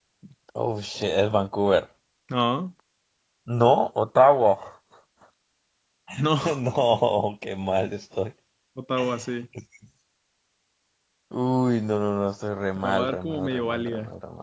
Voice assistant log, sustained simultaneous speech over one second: present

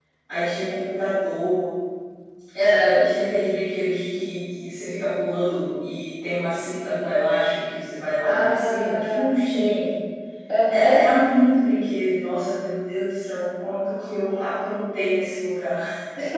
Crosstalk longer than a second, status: present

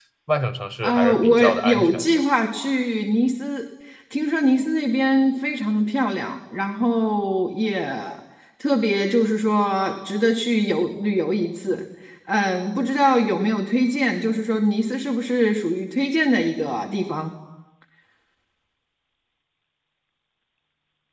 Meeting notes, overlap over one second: present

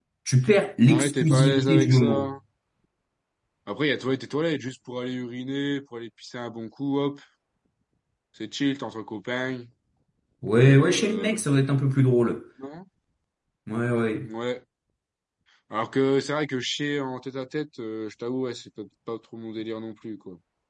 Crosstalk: present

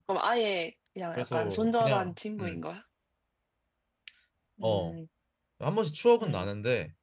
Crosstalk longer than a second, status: present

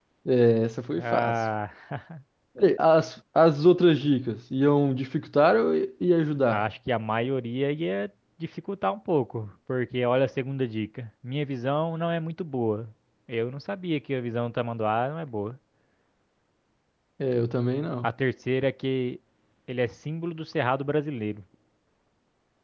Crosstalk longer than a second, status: none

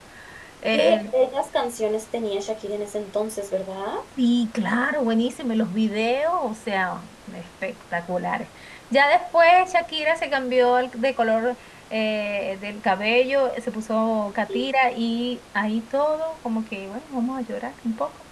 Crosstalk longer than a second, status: none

